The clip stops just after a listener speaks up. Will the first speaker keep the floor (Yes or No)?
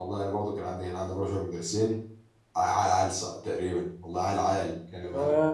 No